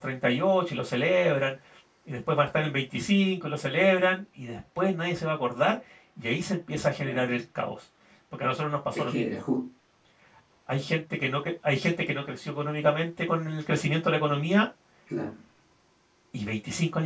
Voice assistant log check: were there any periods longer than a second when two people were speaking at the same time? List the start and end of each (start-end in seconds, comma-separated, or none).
none